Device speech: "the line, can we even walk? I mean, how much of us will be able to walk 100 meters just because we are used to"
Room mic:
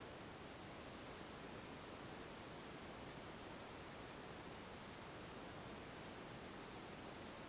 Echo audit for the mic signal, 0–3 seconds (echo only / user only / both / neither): neither